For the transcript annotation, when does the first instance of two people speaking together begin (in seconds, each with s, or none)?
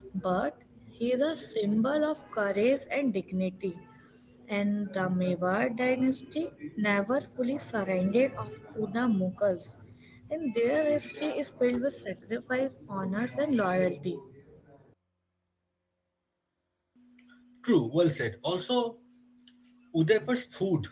none